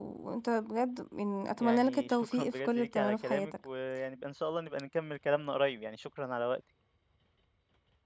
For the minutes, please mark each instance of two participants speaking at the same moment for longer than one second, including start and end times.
1.6-3.5

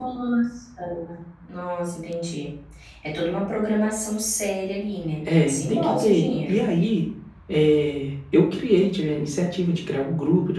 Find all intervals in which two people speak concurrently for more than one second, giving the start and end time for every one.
5.4-6.6

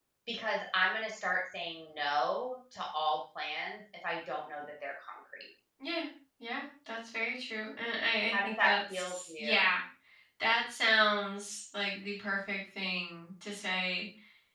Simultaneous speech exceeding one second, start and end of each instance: 8.3-9.7

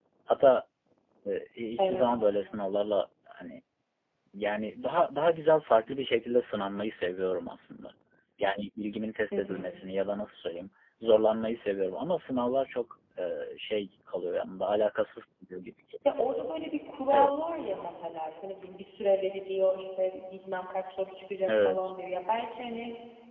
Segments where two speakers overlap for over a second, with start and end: none

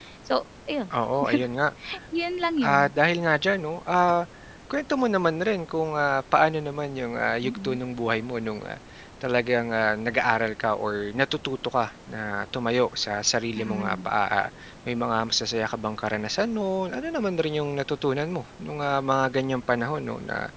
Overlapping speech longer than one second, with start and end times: none

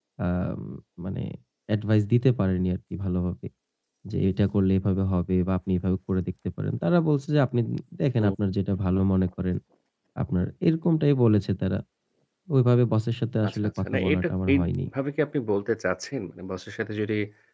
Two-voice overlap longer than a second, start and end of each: 13.5-14.7

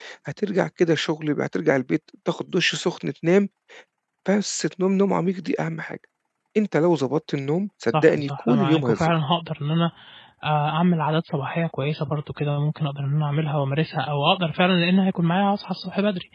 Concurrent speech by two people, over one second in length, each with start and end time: 7.9-9.1

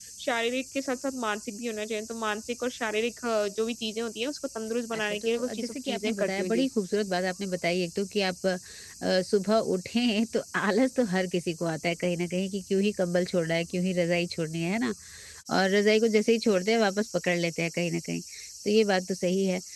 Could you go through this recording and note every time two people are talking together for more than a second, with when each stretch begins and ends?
5.2-6.7

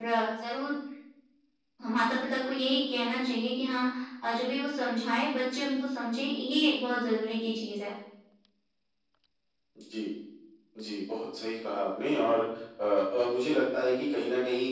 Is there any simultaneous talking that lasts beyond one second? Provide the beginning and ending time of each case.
none

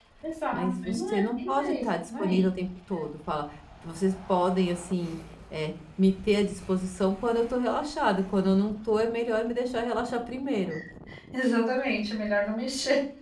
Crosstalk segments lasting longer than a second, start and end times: 0.5-2.4

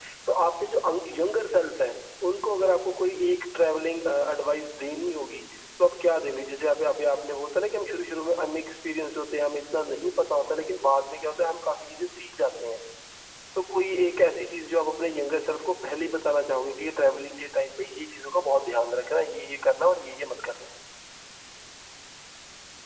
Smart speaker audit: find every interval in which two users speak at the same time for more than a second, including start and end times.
none

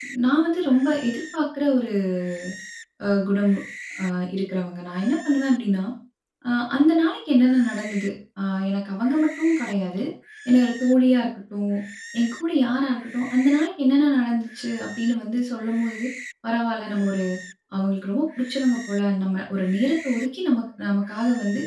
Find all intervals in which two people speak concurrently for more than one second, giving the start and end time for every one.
none

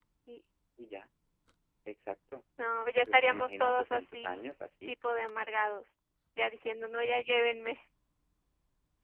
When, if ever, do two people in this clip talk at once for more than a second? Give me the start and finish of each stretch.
3.0-4.4

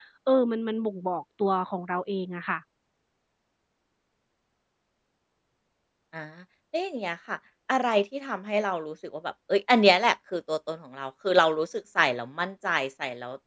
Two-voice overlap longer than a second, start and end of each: none

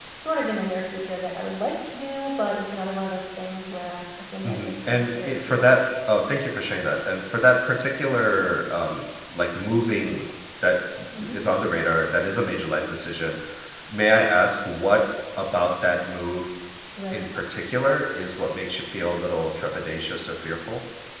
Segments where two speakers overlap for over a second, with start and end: 4.4-5.7

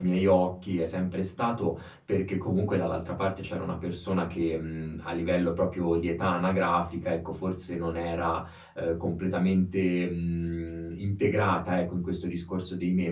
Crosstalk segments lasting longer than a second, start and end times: none

